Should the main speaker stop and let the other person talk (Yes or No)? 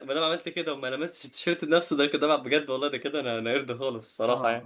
Yes